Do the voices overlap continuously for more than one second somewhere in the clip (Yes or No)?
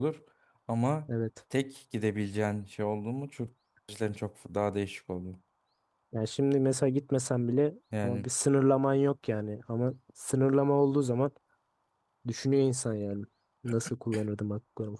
No